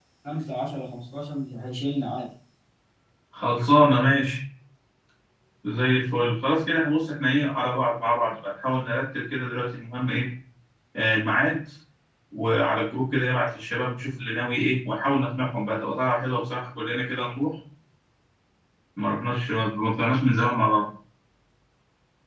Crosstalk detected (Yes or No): No